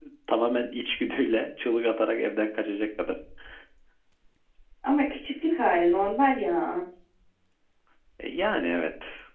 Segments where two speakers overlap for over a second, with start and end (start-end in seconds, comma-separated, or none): none